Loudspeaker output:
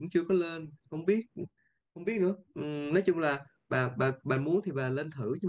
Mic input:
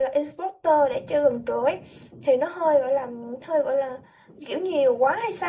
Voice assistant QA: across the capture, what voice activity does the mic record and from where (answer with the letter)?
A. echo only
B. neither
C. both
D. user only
D